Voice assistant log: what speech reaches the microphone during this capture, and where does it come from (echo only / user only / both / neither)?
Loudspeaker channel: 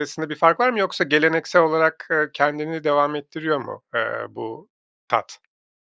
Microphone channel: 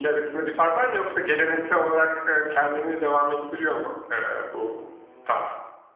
both